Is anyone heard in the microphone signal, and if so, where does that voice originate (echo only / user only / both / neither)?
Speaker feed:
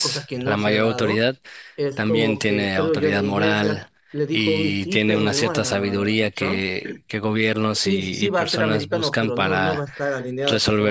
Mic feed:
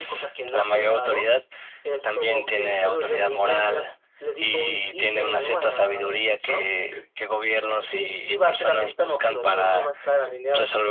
echo only